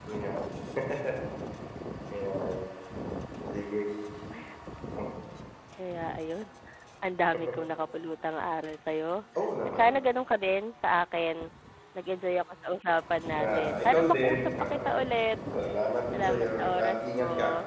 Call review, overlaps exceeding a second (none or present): present